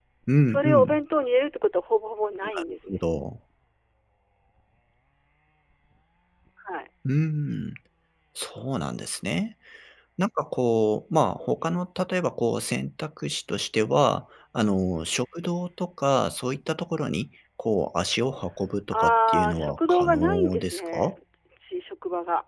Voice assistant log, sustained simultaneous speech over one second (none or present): present